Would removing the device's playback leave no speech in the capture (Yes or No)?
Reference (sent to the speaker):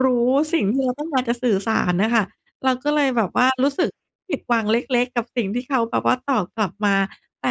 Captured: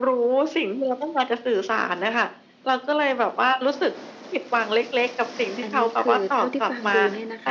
No